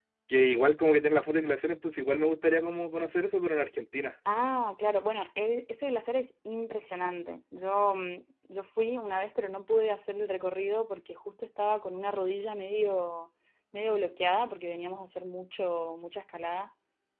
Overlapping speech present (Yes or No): No